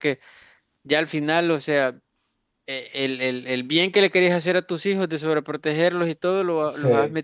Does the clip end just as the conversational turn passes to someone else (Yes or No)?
No